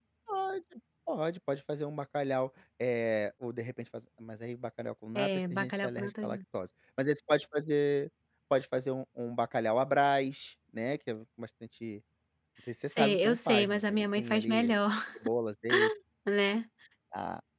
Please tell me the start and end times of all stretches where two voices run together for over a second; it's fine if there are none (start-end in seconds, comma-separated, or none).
5.2-6.4, 12.8-14.8